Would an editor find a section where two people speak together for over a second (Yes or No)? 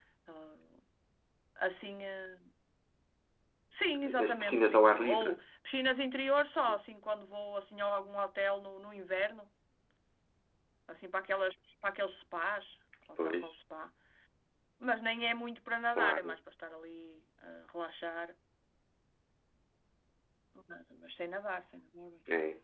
Yes